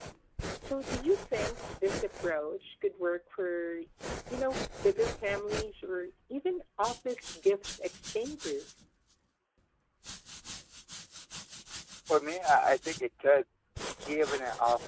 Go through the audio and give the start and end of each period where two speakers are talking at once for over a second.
none

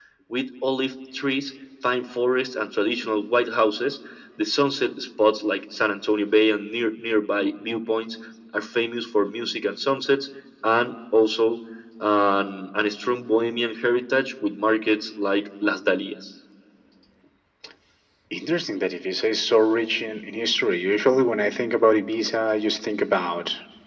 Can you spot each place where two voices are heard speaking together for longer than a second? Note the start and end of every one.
none

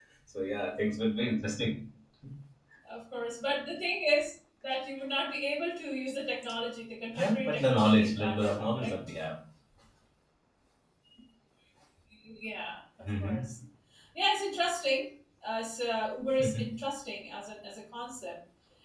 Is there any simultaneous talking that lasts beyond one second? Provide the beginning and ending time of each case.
7.1-8.9

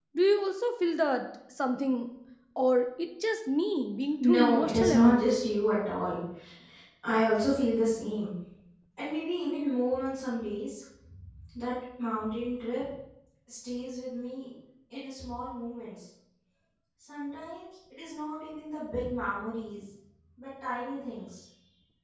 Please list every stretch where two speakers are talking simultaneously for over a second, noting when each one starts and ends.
4.2-5.4

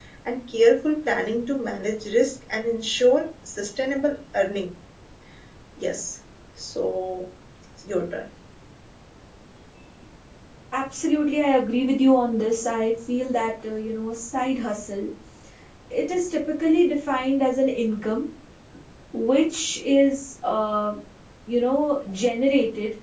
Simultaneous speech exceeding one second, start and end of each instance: none

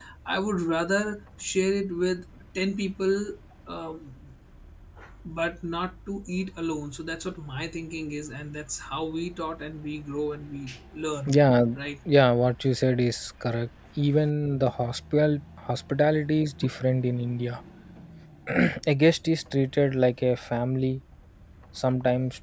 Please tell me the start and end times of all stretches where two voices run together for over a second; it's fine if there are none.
none

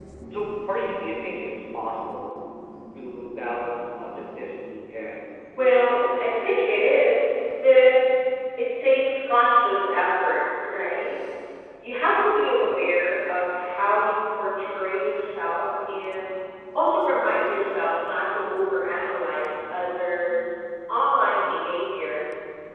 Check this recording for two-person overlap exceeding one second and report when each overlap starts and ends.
5.6-6.9

